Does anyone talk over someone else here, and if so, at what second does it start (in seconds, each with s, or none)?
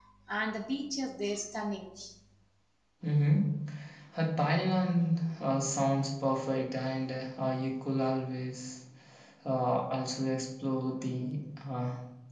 none